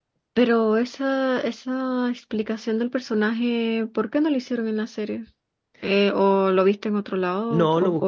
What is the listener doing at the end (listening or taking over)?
taking over